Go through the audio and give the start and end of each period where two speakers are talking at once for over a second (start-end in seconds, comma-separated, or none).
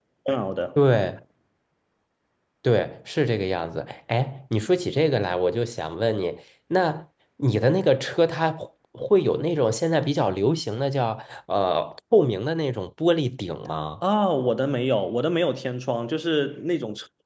none